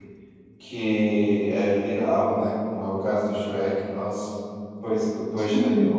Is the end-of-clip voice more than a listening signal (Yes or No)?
No